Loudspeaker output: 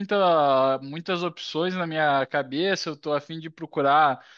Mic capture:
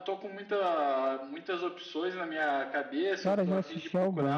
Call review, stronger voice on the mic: user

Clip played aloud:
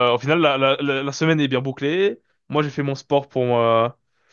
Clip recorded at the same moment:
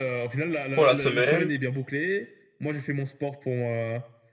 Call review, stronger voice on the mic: user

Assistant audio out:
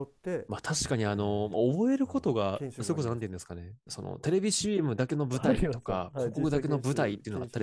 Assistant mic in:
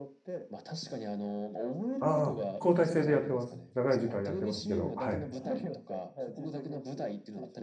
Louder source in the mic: user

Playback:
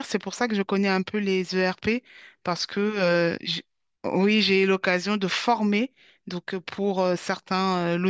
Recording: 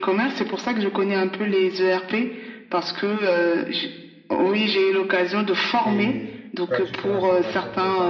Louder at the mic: echo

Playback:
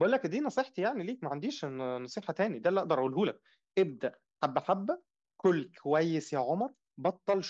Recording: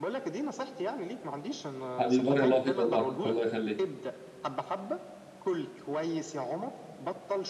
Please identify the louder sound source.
user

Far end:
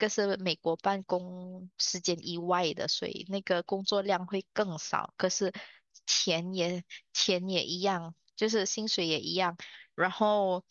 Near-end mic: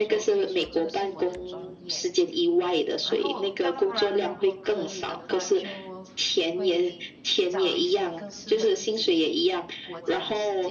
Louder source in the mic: echo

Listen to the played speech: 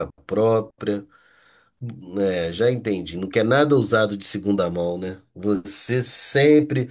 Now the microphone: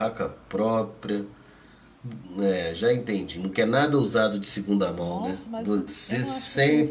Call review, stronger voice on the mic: echo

